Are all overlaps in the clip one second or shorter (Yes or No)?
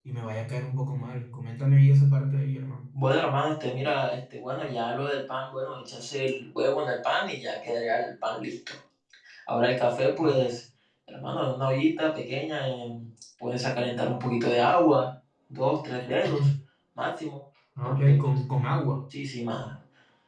Yes